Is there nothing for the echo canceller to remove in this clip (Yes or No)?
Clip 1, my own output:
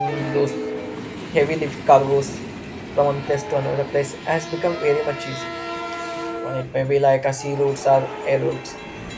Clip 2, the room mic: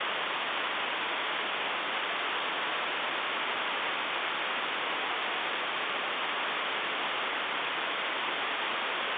Yes